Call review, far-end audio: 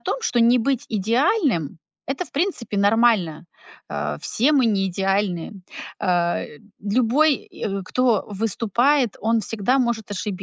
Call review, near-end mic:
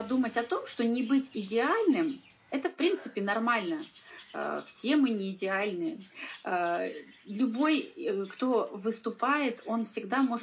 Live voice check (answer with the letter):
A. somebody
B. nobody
B